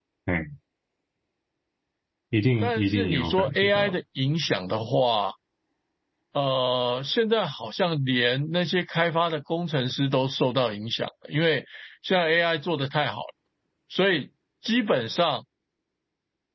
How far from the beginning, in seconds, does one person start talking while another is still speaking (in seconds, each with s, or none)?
2.6 s